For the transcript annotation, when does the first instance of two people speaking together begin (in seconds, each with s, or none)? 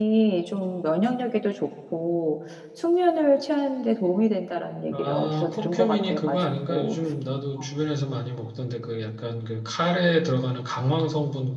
4.9 s